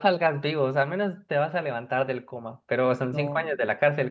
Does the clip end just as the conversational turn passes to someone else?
No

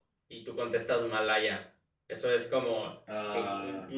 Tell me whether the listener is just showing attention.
Yes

